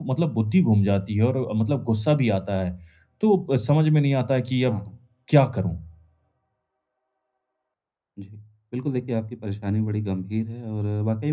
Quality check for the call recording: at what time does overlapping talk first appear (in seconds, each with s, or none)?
none